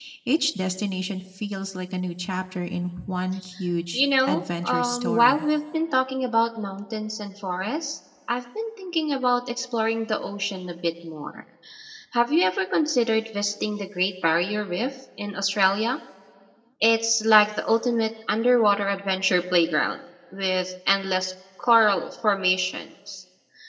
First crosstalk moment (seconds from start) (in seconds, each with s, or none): 3.9 s